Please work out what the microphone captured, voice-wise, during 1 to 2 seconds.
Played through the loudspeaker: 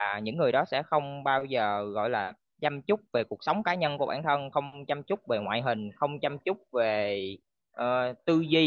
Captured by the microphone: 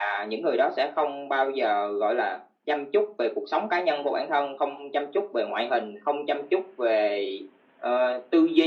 echo only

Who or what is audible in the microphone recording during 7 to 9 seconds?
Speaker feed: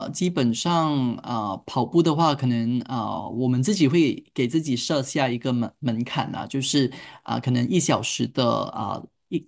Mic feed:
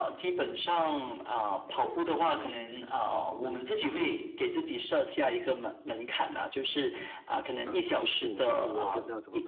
both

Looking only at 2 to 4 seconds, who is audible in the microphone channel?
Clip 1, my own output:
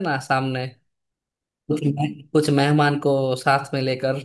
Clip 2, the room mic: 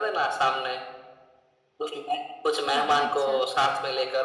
both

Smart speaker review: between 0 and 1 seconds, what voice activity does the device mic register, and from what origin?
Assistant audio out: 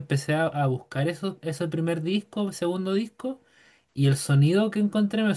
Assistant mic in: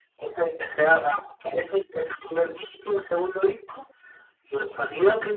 echo only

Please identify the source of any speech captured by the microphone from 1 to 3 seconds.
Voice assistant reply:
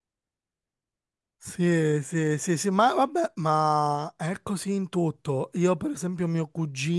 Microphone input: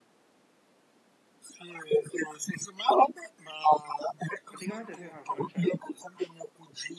echo only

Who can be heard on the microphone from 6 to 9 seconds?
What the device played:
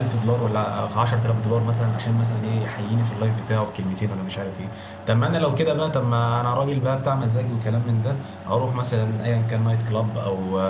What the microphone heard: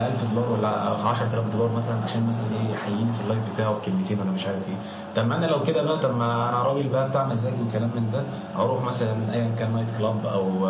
echo only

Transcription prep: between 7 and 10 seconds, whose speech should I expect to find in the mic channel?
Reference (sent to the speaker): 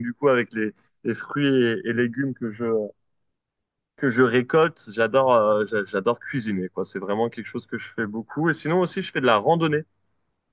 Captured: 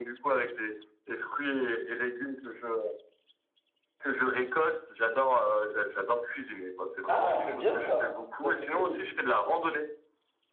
both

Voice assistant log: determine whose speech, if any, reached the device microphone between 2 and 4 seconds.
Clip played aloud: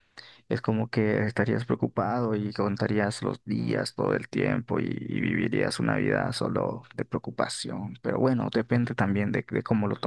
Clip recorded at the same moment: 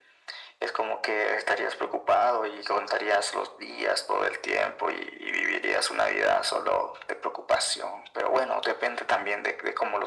echo only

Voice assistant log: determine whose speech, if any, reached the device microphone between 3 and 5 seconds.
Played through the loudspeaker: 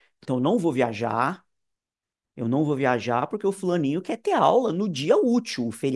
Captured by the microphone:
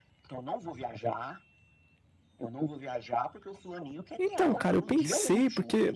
both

